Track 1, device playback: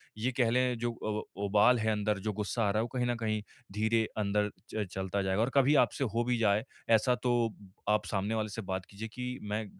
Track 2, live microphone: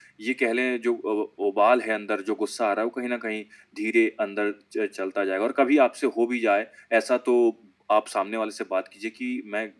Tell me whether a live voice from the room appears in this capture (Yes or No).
No